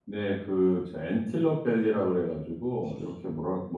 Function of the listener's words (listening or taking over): listening